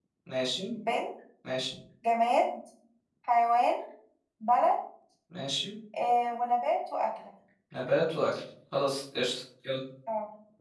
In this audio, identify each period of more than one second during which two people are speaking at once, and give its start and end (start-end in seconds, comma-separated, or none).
none